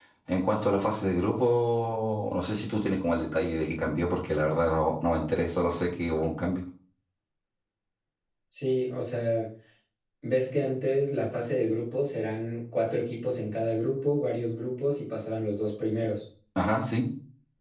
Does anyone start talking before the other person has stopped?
No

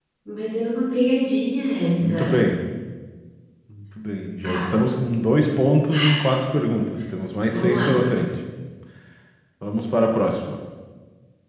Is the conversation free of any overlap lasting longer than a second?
Yes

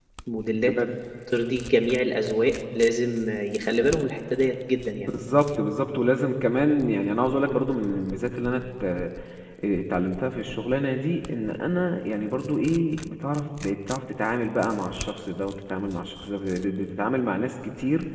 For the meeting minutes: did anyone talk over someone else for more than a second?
No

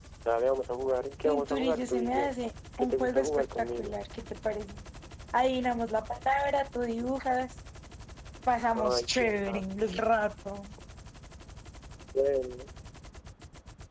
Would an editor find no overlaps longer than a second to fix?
No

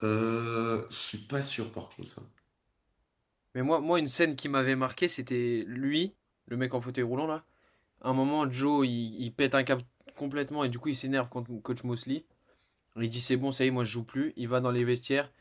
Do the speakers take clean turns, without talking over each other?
Yes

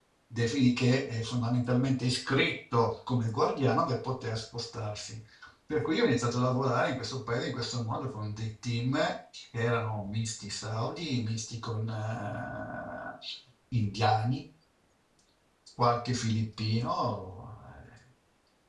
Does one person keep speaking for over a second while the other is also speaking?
No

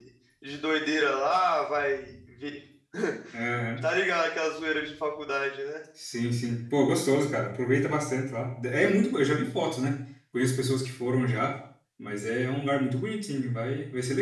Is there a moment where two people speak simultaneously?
No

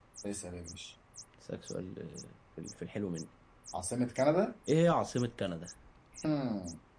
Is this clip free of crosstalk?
Yes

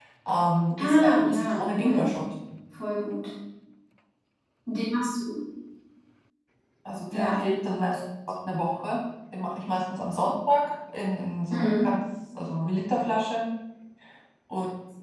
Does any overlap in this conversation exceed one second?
Yes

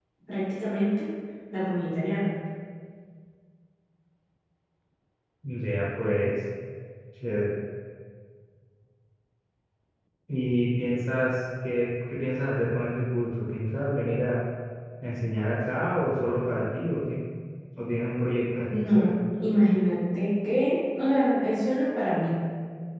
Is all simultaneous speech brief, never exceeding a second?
Yes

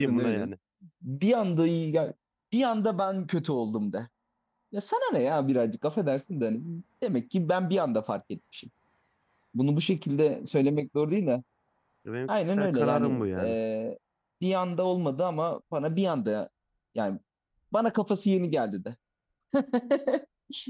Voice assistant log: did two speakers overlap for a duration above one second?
Yes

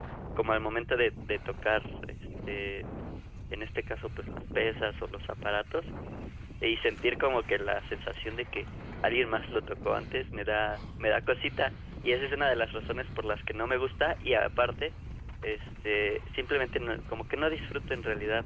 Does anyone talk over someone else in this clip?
No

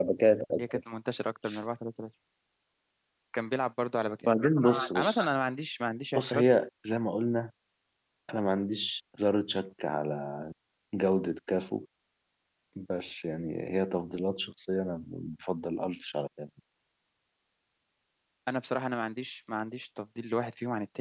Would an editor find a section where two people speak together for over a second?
No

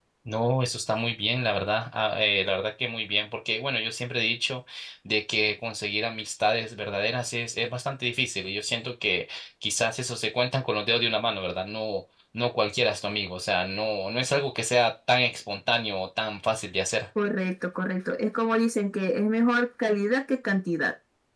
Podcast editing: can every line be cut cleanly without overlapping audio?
Yes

